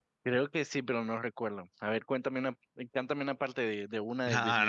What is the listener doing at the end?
taking over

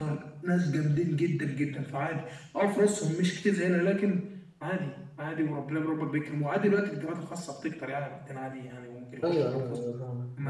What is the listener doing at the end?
taking over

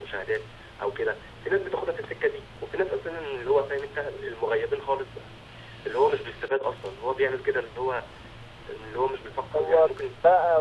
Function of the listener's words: taking over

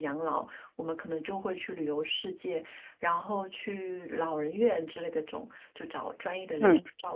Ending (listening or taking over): listening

